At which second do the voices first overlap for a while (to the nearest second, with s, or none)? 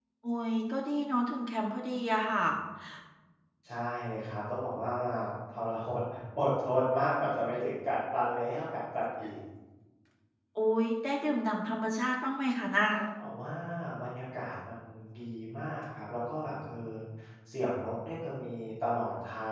none